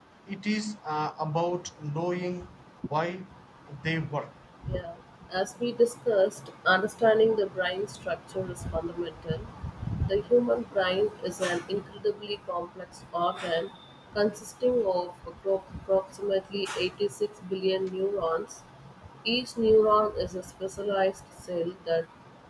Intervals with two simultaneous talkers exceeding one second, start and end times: none

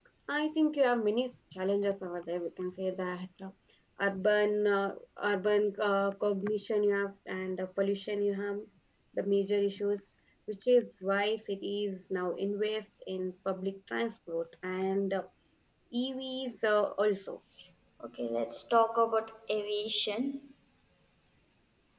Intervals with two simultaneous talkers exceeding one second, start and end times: none

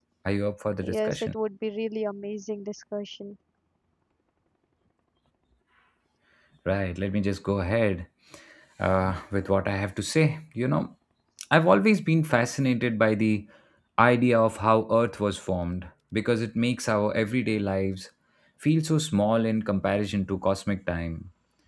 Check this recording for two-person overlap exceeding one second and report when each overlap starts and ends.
none

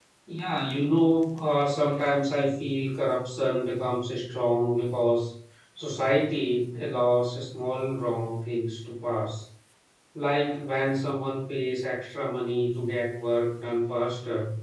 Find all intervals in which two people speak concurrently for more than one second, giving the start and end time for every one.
none

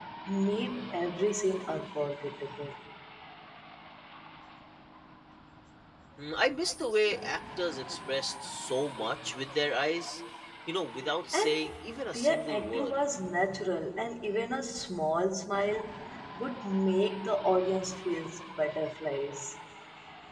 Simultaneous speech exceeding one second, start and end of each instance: 11.3-13.0

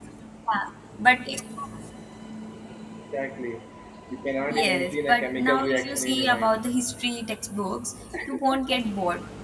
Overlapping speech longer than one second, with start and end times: 4.5-6.6

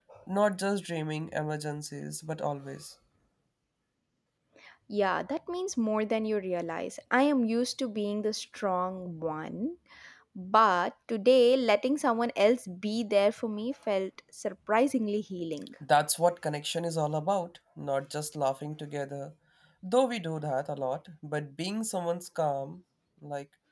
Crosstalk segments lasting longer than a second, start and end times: none

